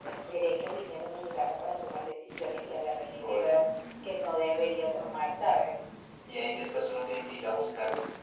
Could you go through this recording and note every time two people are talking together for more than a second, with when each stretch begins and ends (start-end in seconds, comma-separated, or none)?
none